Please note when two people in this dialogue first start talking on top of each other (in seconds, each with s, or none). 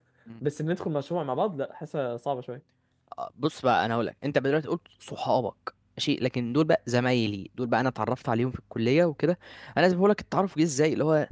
none